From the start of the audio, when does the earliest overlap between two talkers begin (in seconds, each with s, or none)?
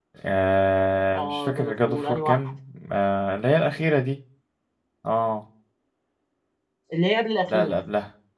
1.1 s